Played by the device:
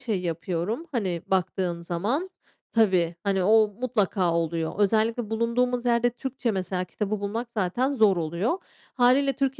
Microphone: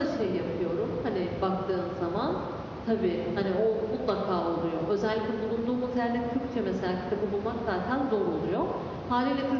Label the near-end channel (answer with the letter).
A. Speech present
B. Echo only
B